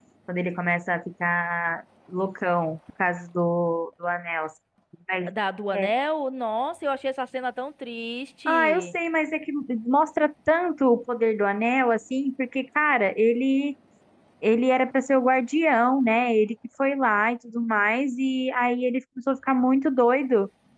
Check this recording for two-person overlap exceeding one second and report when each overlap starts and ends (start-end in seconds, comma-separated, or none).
none